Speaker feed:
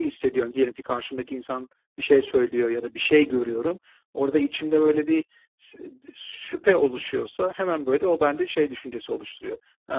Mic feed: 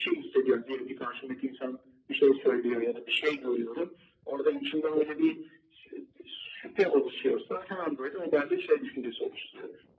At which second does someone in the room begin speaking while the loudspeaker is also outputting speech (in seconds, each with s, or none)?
none